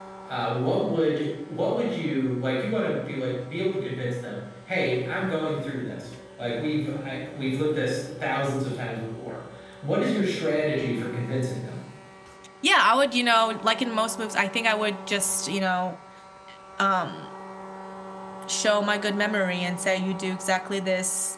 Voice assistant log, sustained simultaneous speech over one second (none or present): none